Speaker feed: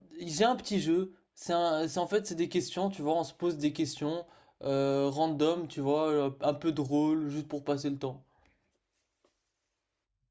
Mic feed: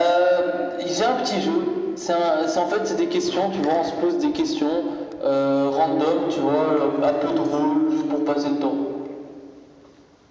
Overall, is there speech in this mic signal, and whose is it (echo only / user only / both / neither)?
echo only